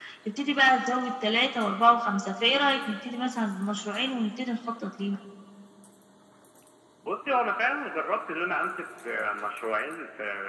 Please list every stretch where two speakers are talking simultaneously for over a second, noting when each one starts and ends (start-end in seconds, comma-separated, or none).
none